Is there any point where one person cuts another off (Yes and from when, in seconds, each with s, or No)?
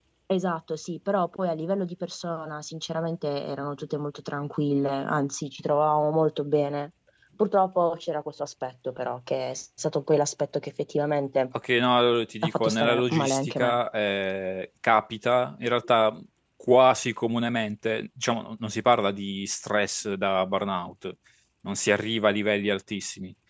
Yes, from 12.4 s